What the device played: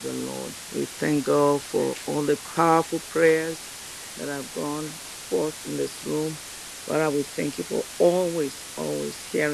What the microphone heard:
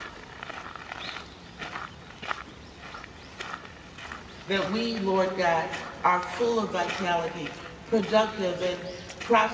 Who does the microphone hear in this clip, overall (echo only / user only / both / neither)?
user only